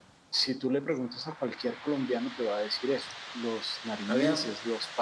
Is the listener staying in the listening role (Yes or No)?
Yes